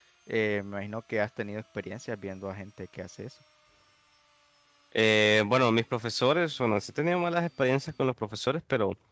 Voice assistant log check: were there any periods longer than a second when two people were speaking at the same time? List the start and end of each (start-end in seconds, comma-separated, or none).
none